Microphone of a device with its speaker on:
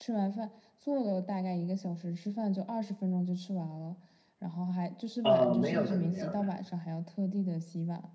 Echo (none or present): present